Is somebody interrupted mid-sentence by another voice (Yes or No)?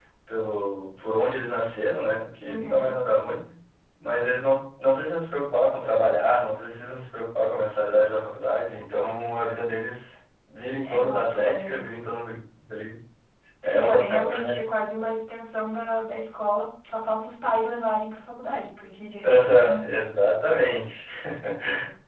Yes